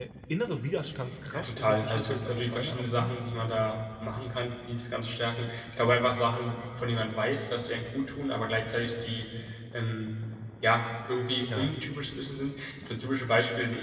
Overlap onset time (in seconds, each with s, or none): 1.3 s